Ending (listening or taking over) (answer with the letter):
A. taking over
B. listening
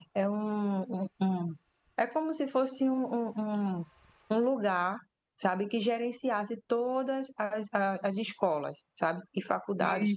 B